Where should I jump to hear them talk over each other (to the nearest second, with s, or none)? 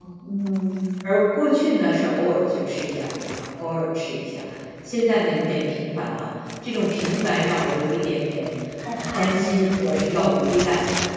9 s